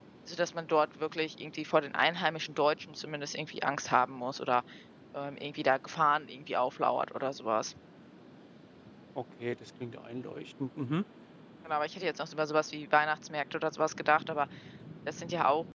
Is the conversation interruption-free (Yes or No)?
Yes